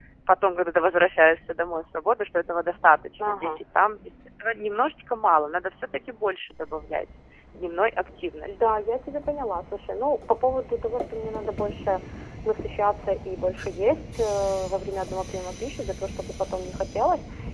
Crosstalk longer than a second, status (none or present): none